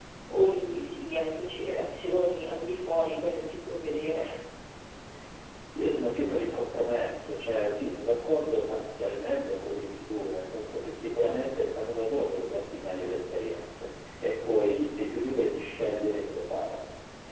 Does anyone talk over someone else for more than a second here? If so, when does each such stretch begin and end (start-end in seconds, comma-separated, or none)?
none